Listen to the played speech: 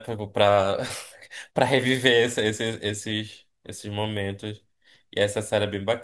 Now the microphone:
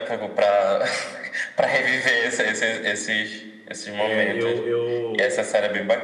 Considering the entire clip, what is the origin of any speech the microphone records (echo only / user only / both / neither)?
both